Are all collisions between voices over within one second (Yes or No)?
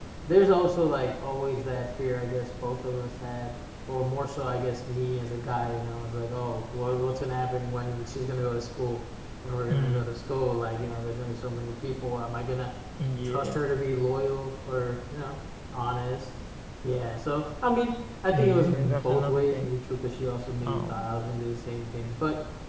No